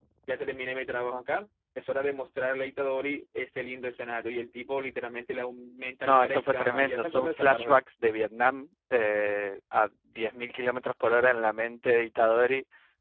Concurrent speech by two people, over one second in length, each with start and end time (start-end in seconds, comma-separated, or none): 6.0-7.8